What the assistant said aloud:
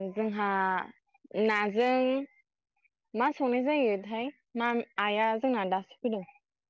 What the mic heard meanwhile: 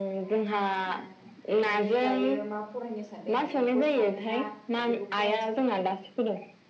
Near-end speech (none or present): present